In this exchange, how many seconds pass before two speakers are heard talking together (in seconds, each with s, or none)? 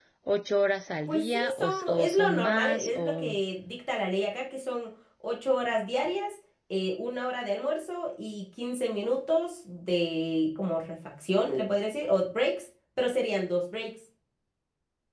1.1 s